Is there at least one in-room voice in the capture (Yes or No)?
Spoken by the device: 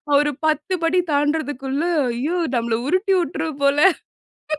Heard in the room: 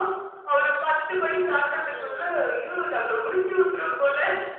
Yes